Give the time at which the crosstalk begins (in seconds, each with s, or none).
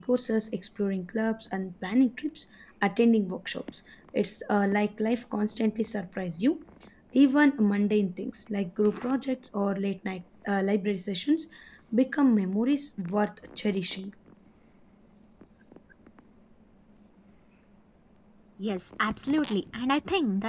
none